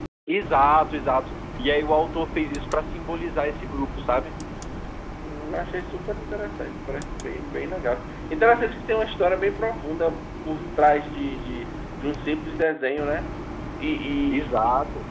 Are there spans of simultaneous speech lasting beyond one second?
No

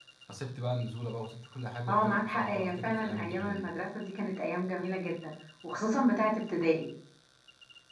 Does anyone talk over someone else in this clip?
Yes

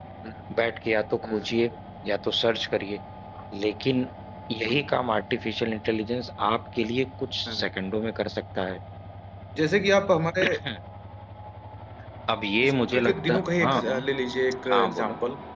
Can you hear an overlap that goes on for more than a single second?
Yes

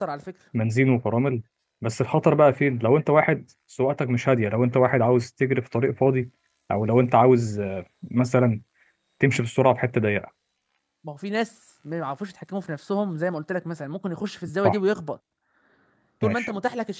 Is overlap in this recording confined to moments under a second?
Yes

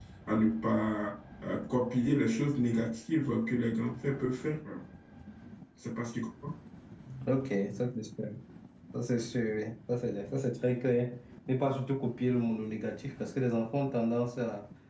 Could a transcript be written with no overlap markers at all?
Yes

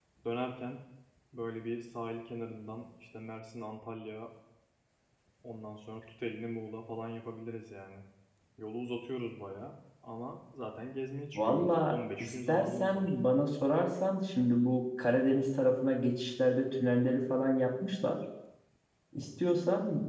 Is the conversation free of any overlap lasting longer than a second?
No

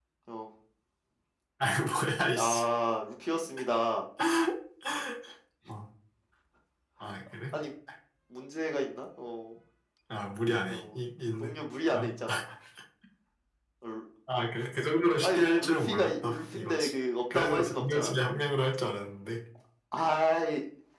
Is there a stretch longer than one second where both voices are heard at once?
Yes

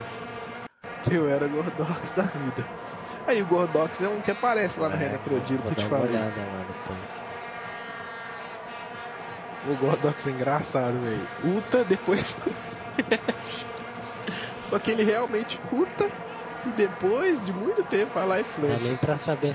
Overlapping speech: Yes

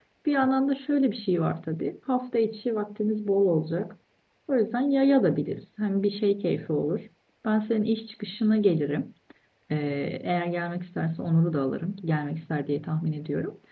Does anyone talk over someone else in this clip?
No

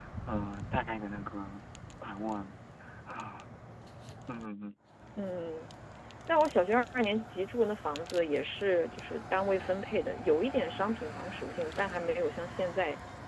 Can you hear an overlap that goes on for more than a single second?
No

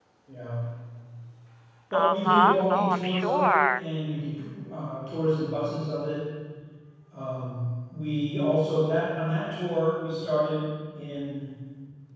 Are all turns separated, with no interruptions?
No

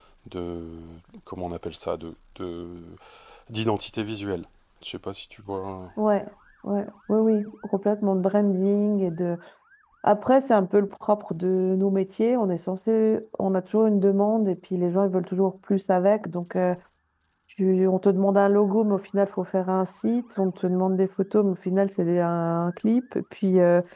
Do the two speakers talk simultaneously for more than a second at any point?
No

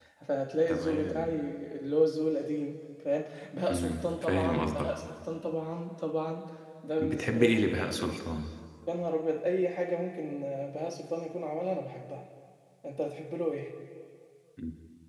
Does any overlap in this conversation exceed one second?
Yes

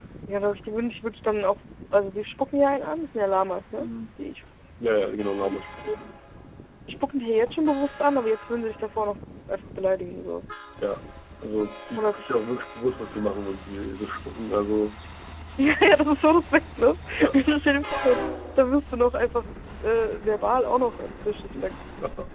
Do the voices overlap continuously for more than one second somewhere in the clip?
No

